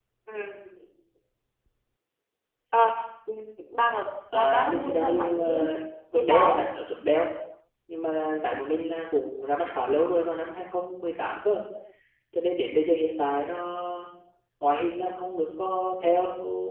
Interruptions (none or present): present